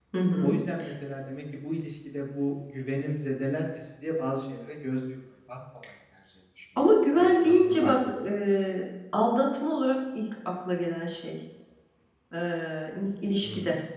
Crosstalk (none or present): present